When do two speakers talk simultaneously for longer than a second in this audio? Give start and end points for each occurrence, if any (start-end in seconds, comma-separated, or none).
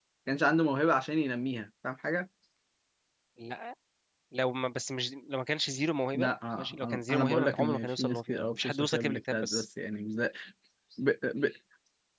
6.1-9.7